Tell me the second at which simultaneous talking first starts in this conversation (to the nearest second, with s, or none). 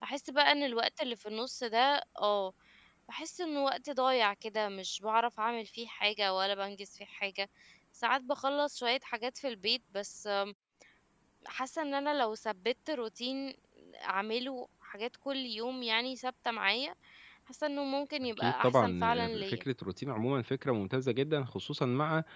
18 s